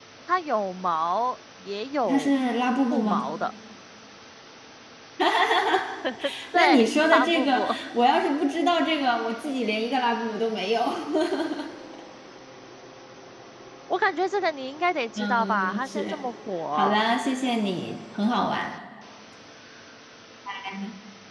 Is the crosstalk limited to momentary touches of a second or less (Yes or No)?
No